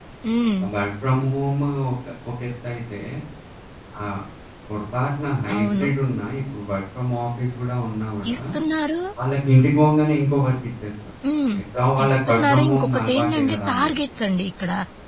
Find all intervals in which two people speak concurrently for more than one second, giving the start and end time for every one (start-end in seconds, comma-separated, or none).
12.0-13.9